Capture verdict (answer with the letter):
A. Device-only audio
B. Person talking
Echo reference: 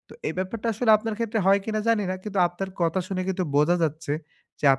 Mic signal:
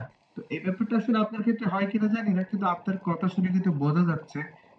A